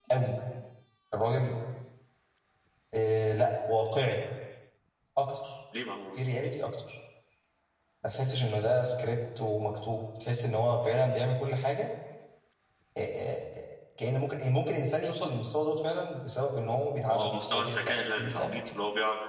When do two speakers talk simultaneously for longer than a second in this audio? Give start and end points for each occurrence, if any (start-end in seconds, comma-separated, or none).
17.1-18.6